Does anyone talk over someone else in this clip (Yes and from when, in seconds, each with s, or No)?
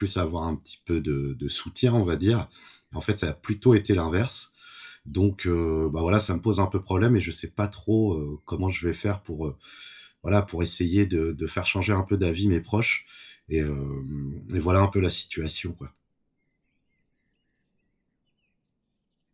No